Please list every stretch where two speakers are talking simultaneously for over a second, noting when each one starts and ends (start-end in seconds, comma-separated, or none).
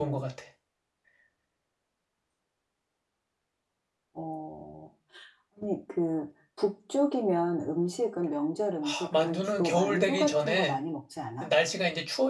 8.8-10.8